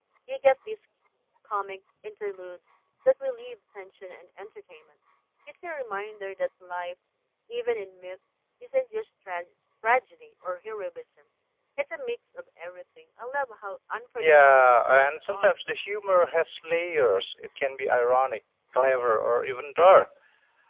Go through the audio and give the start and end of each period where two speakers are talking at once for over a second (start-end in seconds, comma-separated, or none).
14.2-15.5